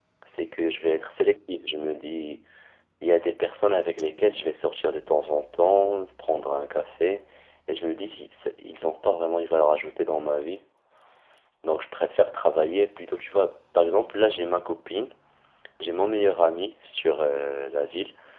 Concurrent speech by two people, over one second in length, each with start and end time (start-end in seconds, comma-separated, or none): none